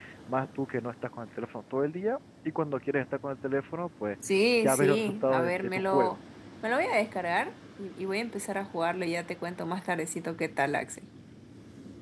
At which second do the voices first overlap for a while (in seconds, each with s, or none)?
4.6 s